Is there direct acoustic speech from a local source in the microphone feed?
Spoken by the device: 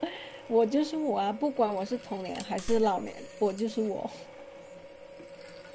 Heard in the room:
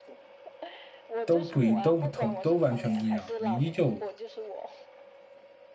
Yes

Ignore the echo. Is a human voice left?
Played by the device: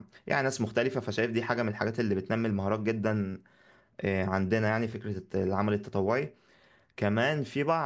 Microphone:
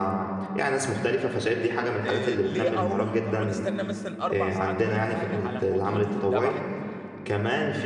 Yes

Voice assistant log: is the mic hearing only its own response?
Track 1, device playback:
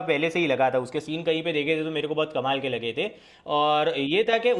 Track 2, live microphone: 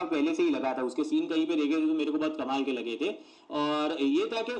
Yes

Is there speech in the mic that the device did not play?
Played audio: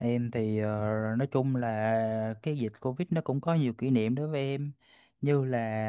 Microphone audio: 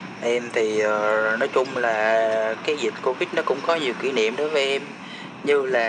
No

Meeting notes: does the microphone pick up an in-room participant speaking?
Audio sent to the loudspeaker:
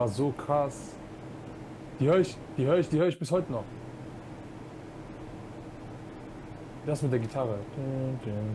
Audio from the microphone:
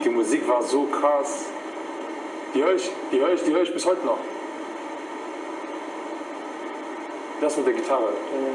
No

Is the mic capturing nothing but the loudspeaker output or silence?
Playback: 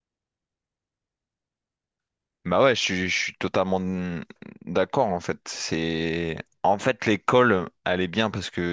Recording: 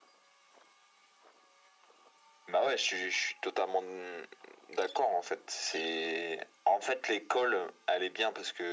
Yes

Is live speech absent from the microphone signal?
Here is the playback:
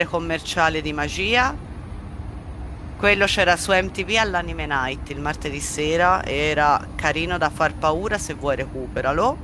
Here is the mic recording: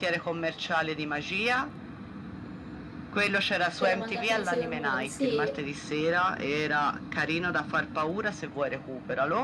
No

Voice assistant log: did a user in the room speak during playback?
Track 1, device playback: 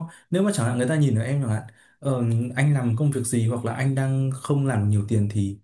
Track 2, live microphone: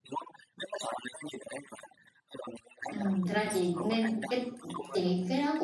Yes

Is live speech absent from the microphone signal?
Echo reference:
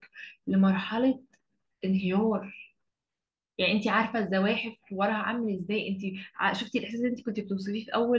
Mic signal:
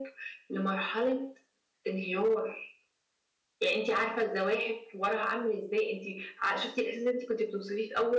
Yes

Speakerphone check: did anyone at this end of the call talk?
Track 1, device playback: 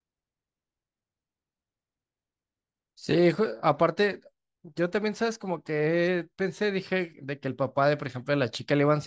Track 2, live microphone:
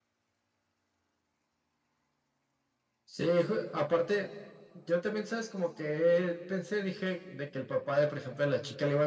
No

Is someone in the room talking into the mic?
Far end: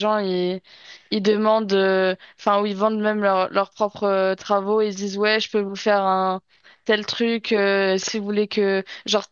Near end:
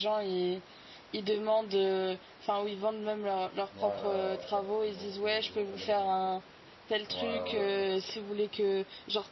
Yes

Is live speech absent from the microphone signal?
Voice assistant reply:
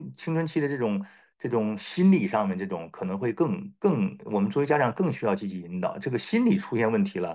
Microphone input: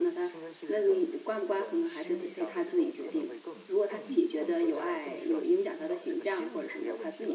No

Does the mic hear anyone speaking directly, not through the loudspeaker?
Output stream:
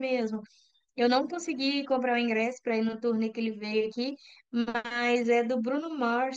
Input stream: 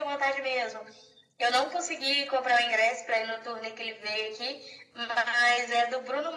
No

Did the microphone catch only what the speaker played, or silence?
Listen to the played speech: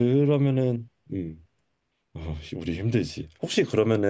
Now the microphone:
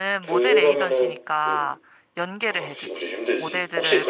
No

